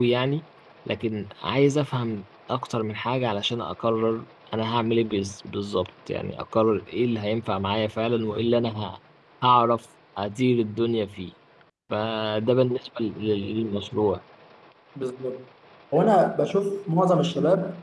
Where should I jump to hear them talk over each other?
none

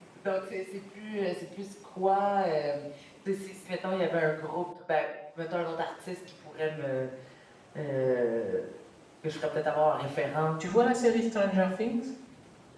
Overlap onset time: none

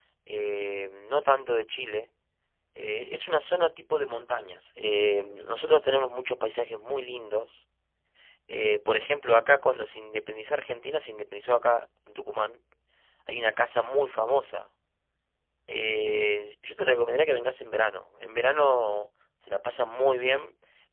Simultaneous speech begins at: none

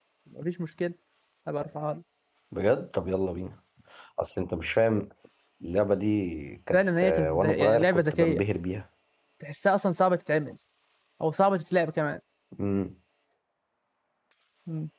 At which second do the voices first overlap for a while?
6.7 s

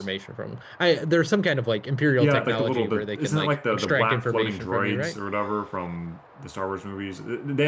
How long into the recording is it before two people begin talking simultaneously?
2.1 s

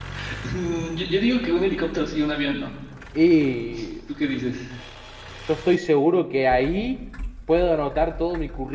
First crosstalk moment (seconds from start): none

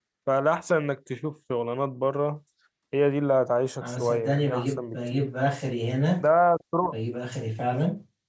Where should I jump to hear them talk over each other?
3.8 s

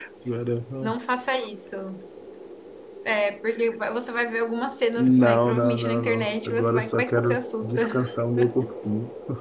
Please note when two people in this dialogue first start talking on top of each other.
5.0 s

